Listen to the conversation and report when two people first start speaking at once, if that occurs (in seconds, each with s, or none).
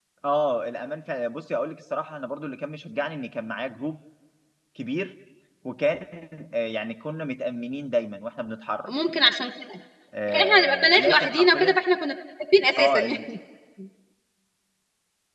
10.3 s